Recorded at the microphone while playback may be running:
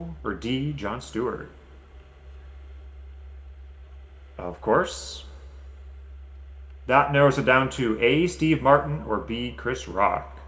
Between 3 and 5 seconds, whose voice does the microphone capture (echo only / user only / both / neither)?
user only